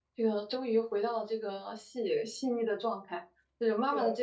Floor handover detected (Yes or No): No